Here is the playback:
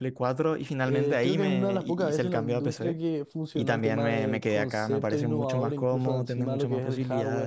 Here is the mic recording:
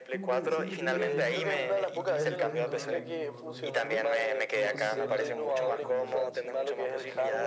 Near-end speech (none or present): present